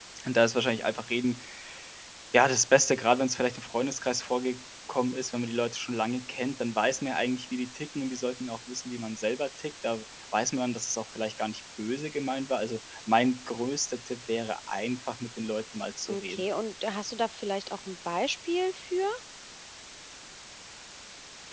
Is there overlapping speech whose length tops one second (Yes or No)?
No